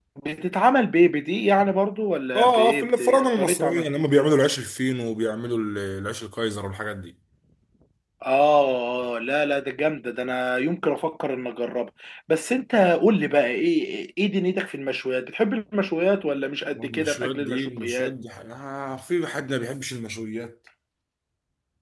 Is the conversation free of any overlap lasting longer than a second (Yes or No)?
No